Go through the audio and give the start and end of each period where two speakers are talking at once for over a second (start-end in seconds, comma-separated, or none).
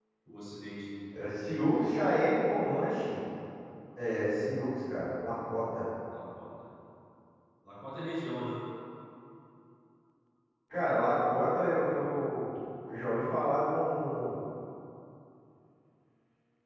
none